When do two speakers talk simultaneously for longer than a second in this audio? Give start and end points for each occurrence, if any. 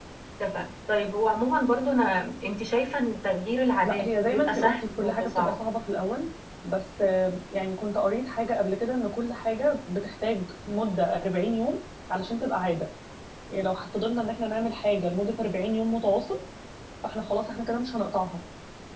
3.8-5.6

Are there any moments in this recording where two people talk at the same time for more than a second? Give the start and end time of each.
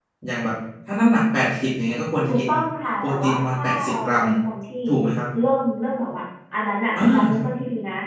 3.0-4.2

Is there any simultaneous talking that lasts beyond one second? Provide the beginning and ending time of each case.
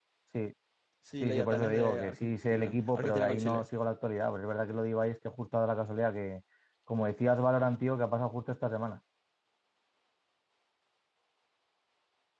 1.2-3.7

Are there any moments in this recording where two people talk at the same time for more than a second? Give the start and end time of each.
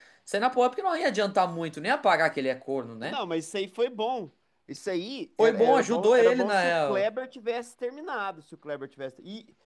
5.4-7.0

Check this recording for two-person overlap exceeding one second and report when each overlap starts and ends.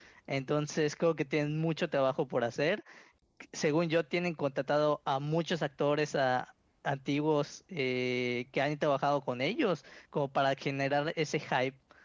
none

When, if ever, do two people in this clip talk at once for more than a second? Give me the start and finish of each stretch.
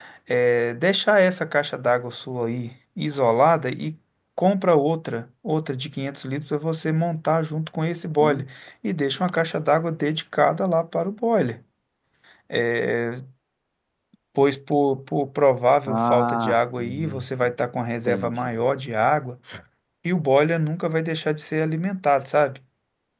15.9-17.2

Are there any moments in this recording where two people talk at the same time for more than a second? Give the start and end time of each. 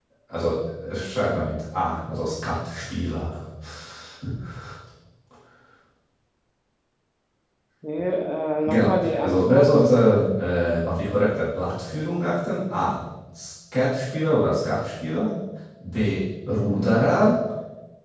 8.7-9.9

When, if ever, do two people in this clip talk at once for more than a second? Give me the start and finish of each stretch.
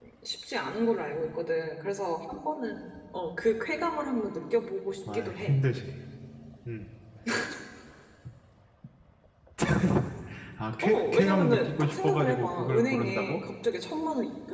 10.8-13.4

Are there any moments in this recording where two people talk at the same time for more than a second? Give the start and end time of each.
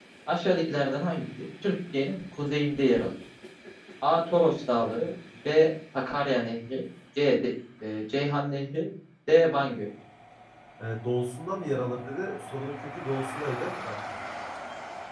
none

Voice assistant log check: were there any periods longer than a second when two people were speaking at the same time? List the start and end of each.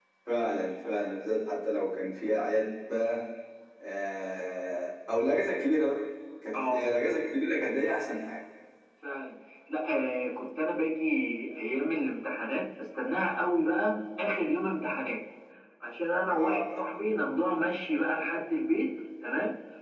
none

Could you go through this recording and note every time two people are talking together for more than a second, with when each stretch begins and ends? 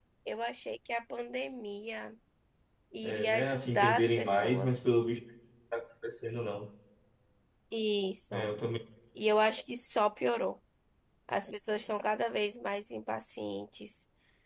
3.0-4.9

